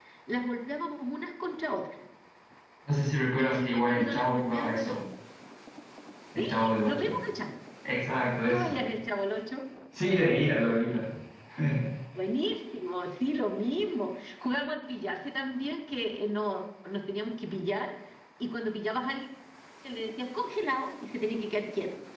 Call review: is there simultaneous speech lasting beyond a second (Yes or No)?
Yes